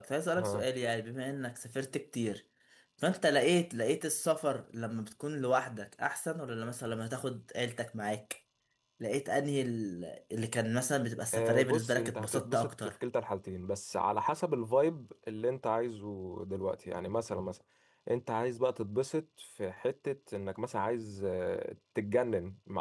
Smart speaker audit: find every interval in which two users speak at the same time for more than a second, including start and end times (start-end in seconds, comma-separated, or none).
11.3-12.9